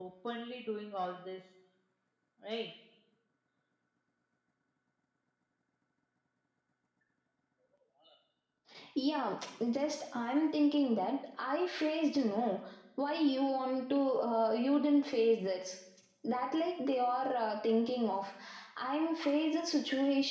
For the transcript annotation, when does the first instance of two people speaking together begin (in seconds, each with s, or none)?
none